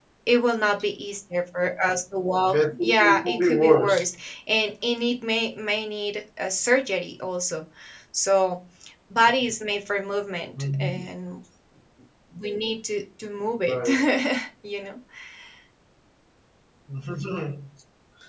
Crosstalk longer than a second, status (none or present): present